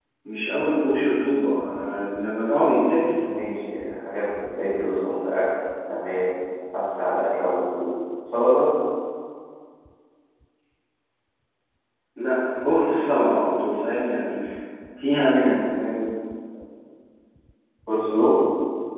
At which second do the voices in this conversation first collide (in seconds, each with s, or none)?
none